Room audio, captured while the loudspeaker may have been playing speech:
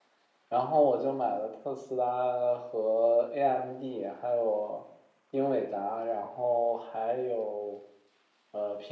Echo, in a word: none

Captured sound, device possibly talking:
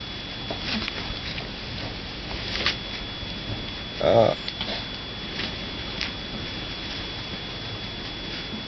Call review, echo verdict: none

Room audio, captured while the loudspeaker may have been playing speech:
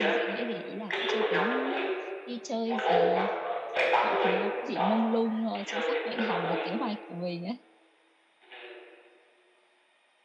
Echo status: present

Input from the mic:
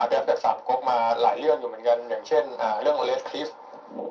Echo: present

